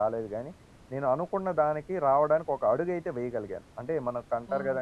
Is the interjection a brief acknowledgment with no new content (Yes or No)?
Yes